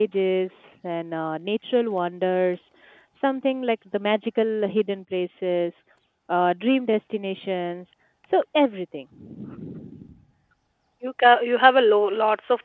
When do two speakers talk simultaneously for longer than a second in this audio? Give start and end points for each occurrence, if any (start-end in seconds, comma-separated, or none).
none